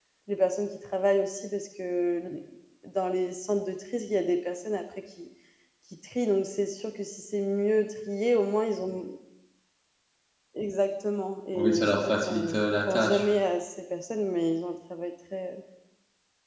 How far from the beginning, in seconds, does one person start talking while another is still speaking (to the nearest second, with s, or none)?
12 s